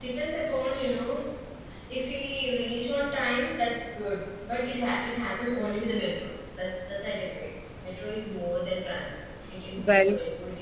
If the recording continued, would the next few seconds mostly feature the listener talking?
No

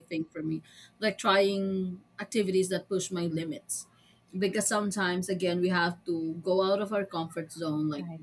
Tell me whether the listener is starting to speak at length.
No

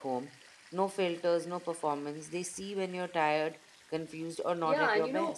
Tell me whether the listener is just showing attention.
No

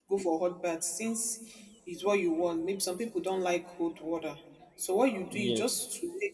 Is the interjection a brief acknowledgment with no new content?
Yes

